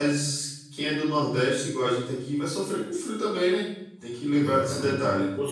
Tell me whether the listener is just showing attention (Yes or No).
No